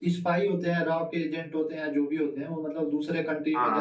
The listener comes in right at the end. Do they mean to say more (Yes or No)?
No